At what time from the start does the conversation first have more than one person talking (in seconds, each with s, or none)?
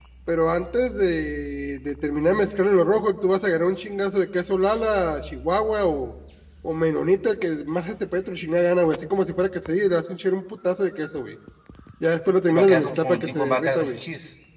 12.5 s